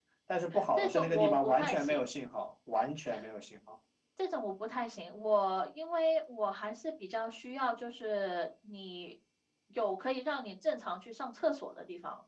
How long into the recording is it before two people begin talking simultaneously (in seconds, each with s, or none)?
0.8 s